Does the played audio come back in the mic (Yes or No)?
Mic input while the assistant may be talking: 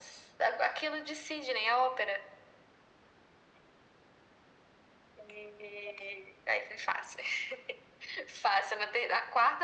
Yes